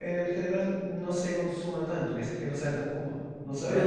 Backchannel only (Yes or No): No